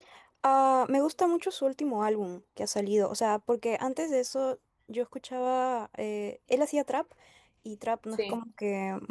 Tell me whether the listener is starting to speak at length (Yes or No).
No